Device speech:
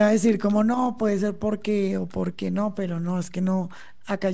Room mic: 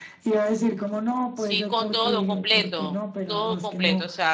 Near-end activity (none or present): present